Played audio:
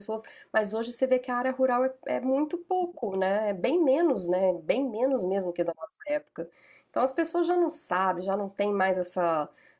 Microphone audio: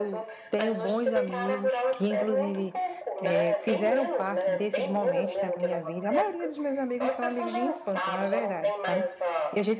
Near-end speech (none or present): present